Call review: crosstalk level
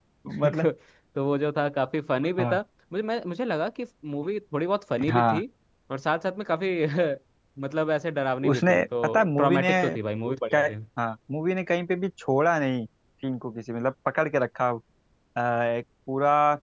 present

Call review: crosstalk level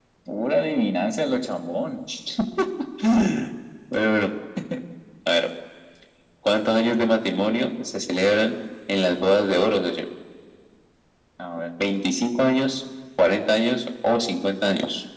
none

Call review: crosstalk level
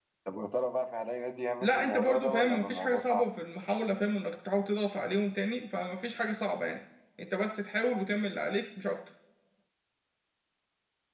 present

